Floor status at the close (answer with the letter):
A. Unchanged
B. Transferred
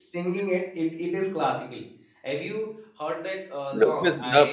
B